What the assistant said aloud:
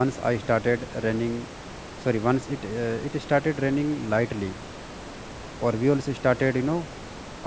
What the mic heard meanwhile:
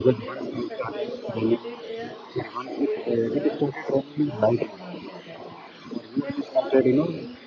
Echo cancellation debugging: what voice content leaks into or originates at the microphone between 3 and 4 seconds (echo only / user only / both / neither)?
both